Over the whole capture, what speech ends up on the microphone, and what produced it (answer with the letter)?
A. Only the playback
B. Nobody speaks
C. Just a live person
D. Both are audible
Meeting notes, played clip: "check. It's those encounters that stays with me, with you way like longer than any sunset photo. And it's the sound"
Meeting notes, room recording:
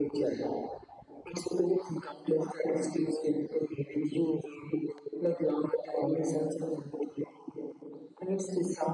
A